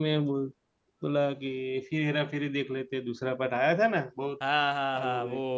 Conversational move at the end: taking over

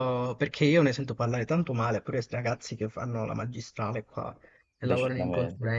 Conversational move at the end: listening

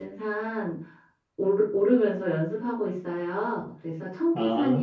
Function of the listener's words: listening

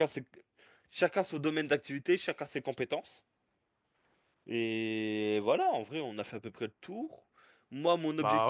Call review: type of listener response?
listening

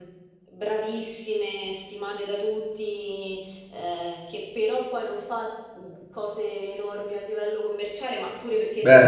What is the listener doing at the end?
taking over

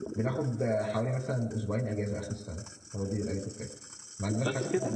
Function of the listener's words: listening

